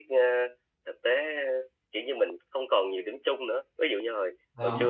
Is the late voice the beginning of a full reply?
No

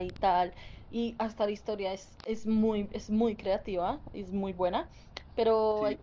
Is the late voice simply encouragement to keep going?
Yes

